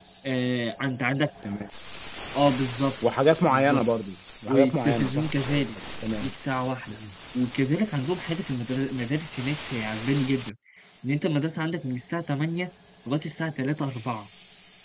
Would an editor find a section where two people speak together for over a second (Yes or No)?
Yes